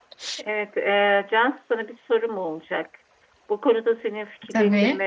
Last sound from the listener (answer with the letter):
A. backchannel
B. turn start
A